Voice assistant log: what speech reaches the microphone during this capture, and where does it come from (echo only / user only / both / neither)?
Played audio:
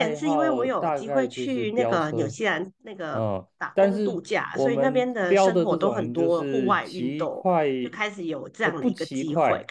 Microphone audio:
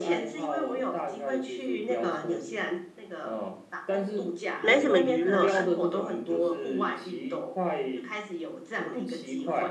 both